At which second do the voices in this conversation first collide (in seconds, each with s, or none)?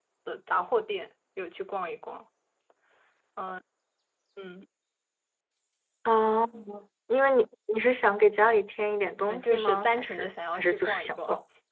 9.2 s